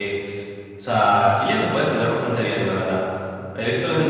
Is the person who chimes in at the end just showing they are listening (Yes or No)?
Yes